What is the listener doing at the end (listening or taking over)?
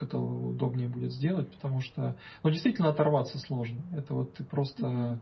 listening